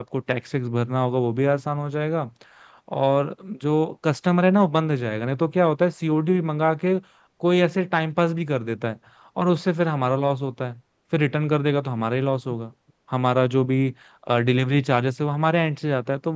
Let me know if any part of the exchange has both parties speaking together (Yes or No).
No